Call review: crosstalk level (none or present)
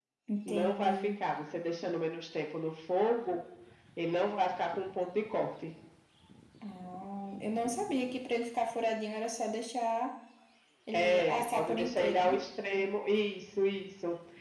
present